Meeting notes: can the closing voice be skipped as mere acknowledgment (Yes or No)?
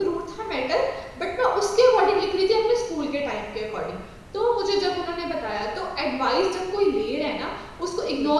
Yes